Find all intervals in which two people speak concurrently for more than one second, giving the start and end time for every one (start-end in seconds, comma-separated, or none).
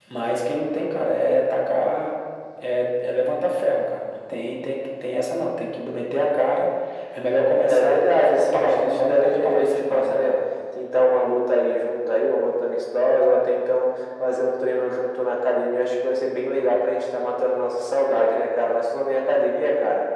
7.7-10.3